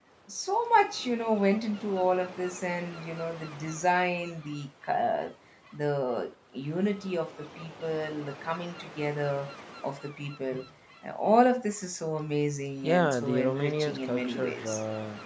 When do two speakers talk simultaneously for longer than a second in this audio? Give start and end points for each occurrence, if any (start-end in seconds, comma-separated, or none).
12.8-14.7